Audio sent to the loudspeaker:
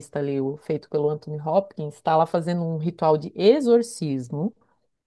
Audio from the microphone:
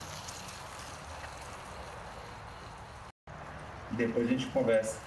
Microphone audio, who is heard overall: user only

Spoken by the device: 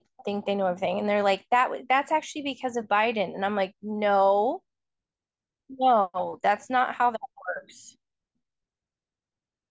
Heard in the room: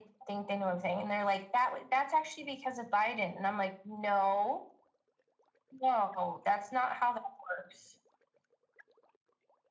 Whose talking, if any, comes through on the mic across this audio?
echo only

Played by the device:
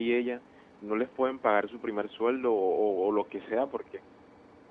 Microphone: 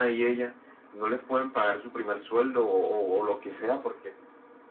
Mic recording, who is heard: echo only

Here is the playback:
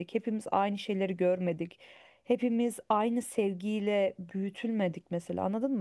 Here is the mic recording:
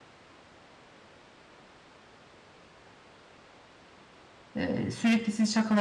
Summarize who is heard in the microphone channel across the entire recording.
user only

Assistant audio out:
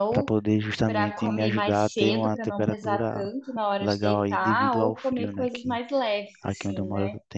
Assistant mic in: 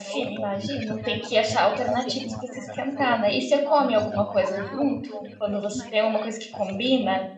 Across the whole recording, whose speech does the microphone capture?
both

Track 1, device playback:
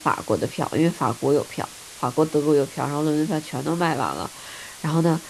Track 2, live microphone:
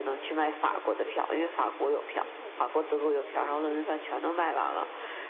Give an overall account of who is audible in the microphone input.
both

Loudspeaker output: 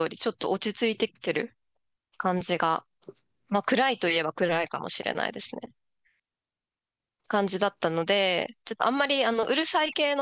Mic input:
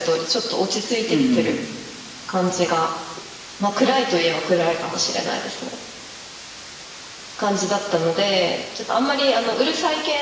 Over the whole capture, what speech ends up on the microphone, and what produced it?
both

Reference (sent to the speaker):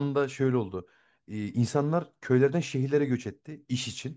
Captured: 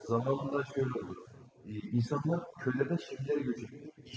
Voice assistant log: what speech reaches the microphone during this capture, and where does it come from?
echo only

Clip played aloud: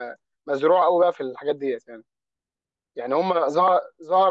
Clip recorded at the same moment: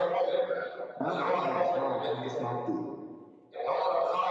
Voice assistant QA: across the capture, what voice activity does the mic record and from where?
both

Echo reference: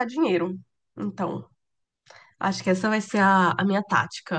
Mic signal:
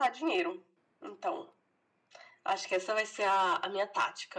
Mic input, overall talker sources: echo only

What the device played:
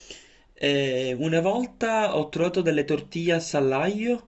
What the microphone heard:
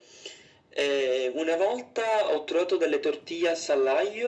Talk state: echo only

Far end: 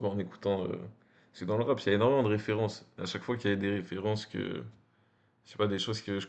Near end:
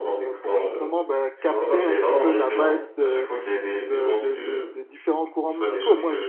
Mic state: both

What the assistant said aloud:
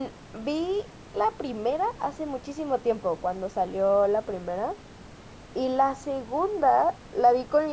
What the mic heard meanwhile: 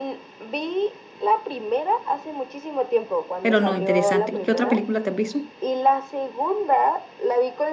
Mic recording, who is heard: both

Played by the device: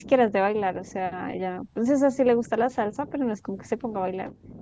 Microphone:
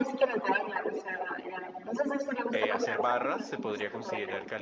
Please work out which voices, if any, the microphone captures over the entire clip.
both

